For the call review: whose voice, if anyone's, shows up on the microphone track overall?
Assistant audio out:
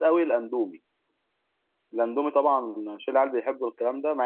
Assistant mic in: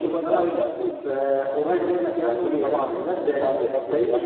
both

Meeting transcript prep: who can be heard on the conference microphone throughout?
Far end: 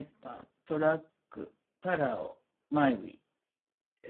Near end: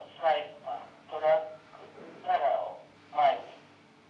echo only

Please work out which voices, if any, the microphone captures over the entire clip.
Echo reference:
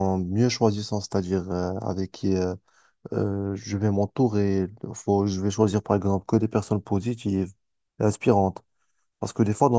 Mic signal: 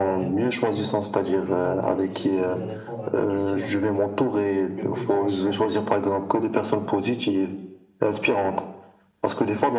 both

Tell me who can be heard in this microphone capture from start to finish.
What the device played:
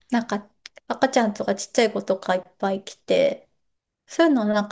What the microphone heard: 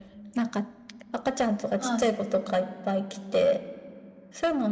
both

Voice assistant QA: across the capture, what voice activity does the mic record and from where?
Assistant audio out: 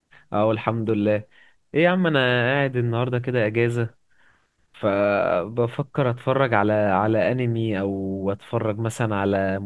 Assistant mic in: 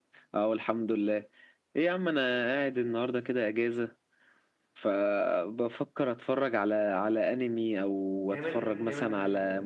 both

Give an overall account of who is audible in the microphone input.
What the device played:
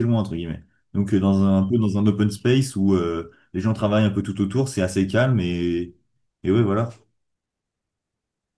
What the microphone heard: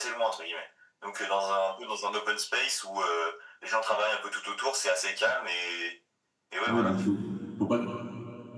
both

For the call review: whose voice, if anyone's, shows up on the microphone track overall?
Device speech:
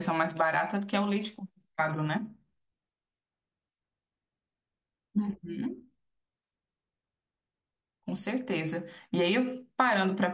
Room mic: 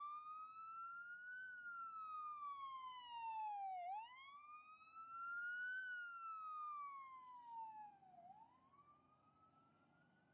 neither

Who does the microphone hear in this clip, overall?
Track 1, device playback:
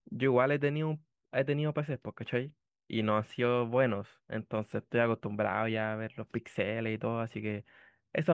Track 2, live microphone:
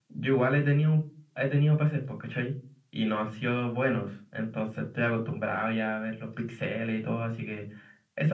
echo only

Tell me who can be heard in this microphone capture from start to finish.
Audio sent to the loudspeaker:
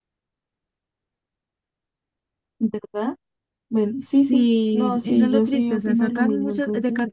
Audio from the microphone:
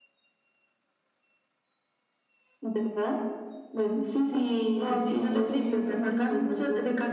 echo only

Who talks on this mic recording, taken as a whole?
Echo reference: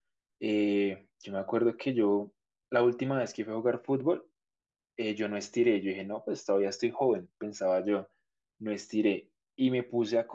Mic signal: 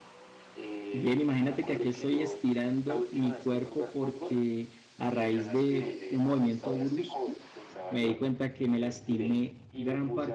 both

